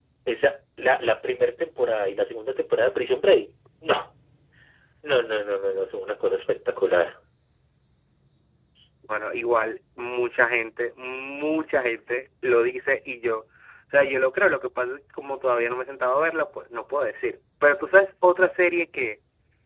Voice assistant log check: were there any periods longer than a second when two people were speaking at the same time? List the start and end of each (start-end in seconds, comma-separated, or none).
none